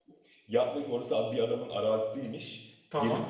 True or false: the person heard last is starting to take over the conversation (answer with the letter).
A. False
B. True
A